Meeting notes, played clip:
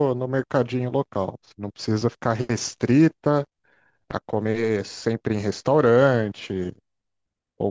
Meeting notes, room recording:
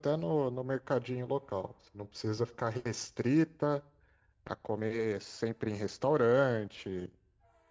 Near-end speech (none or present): none